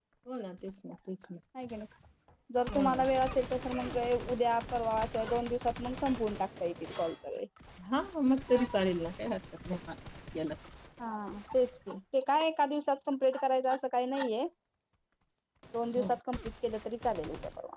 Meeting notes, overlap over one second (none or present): none